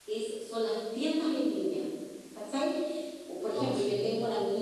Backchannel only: Yes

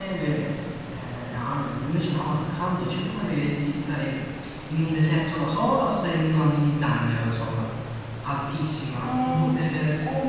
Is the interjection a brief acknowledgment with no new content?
No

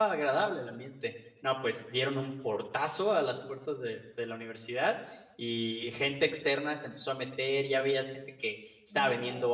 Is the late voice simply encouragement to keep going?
Yes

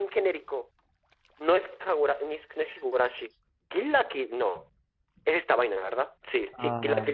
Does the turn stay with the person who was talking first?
Yes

